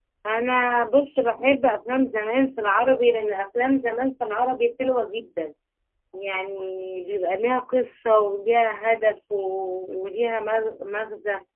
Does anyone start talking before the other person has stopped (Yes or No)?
No